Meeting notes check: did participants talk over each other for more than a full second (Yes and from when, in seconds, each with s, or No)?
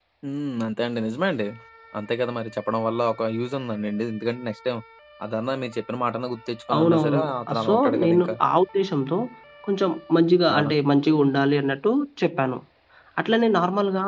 Yes, from 6.7 s